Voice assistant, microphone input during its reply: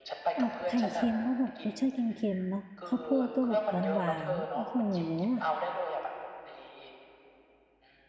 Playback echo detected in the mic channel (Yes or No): Yes